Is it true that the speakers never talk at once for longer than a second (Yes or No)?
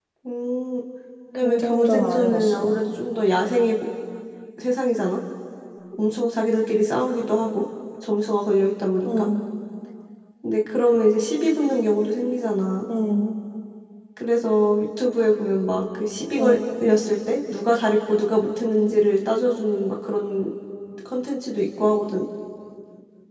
No